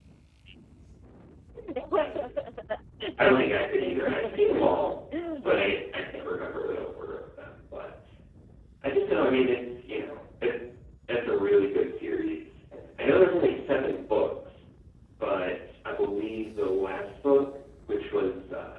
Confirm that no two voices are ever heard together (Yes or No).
No